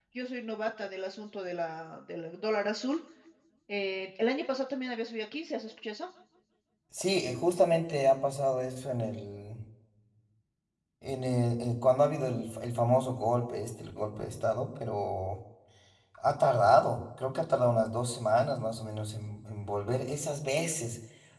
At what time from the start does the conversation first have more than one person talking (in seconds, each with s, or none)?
none